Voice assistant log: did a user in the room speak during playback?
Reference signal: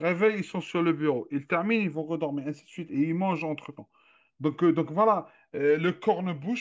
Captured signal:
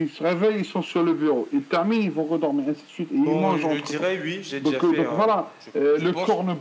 Yes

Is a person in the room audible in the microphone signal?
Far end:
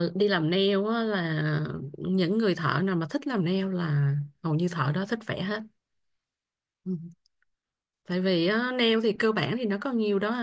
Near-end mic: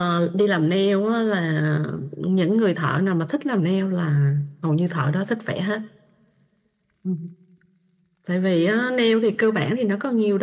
No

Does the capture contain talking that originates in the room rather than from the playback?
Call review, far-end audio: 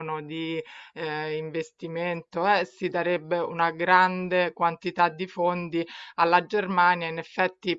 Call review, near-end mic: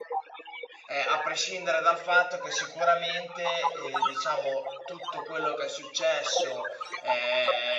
Yes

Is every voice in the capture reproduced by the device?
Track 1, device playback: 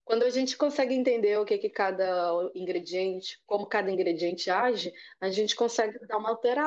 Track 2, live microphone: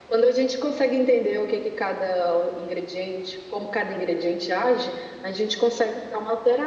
Yes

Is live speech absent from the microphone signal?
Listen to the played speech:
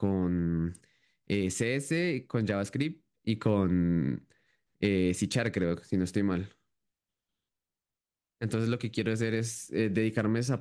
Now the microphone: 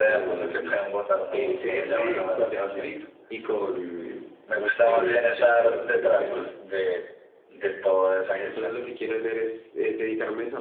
No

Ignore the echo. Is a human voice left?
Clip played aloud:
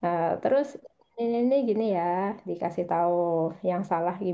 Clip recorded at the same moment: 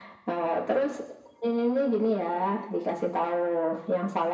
No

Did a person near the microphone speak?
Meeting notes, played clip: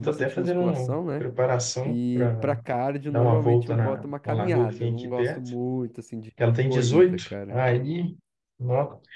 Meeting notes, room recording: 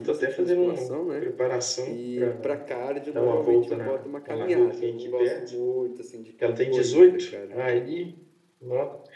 No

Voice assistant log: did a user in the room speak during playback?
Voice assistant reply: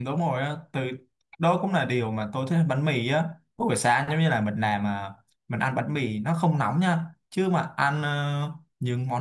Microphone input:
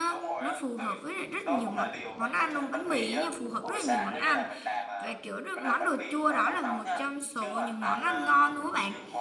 Yes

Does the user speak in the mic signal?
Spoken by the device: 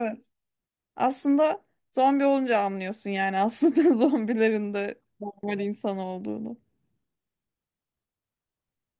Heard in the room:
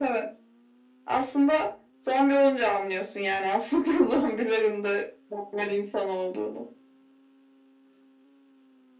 No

